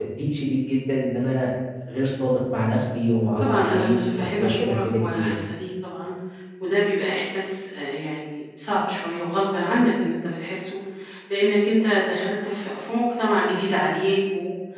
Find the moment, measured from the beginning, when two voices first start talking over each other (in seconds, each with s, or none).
3.4 s